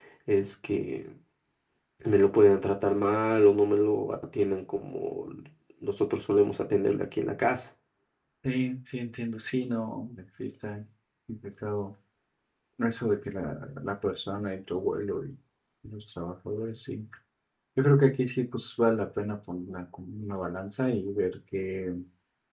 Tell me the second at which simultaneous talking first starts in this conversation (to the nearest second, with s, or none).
none